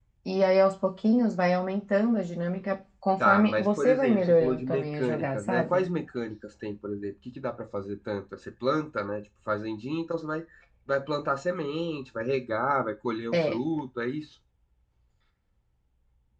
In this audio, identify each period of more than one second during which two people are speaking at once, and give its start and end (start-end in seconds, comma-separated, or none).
3.2-5.9